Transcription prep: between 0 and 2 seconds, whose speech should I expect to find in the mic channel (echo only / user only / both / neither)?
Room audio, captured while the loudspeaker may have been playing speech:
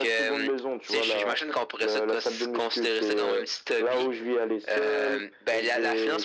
echo only